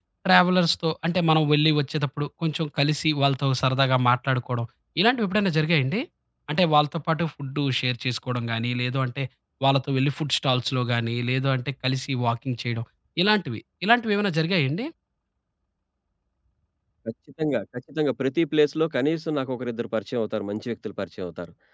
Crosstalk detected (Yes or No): No